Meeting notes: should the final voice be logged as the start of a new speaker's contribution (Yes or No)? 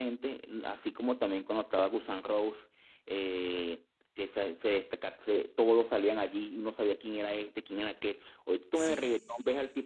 No